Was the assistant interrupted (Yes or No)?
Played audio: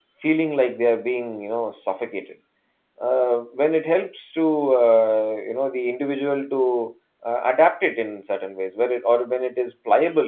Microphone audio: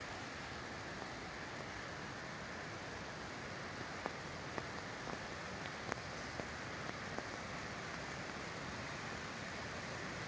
No